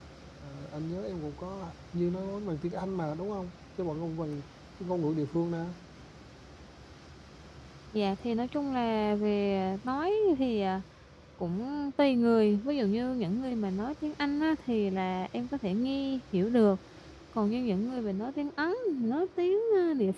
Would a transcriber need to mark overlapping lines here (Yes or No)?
No